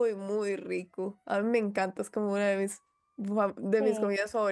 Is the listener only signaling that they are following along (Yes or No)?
Yes